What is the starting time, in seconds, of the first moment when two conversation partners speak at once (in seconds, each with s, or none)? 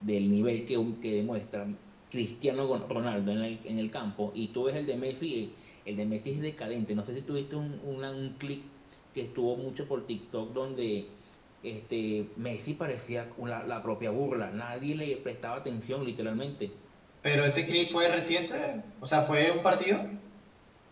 none